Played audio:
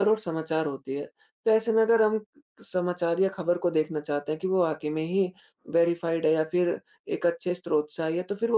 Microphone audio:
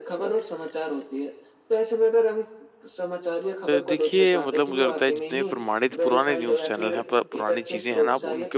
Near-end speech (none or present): present